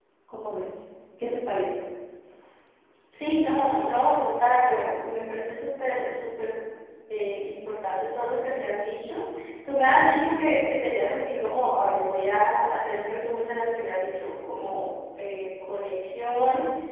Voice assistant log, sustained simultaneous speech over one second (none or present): none